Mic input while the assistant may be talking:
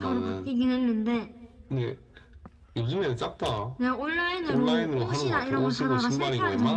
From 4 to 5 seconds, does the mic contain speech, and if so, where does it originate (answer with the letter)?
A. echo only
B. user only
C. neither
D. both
D